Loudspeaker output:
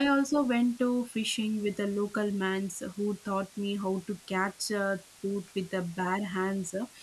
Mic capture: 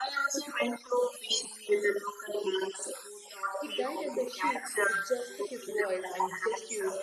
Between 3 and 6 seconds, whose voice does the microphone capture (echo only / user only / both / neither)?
both